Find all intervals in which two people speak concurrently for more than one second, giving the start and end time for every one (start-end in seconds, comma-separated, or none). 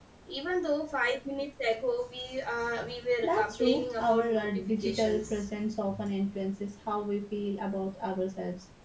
3.2-5.5